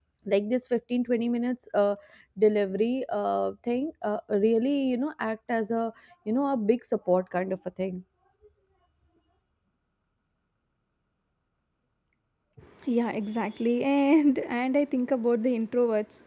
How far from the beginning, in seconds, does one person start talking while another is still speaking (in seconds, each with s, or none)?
none